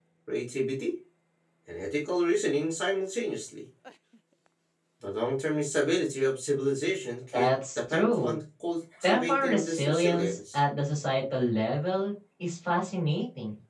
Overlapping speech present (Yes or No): Yes